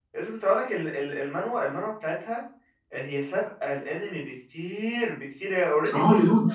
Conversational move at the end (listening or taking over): taking over